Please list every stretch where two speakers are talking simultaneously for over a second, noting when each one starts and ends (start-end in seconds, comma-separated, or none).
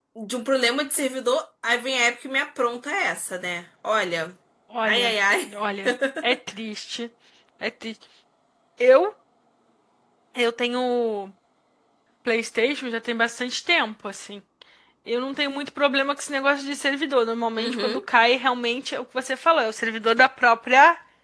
none